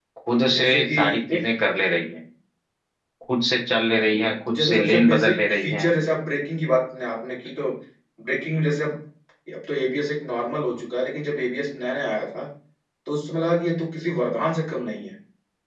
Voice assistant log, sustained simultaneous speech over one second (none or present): present